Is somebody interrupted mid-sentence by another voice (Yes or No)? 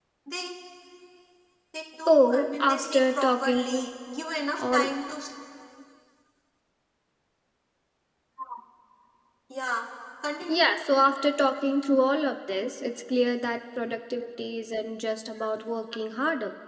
Yes